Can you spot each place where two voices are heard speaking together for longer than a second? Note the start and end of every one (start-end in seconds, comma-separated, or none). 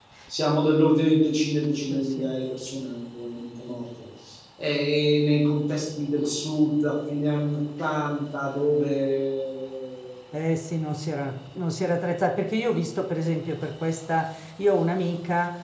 none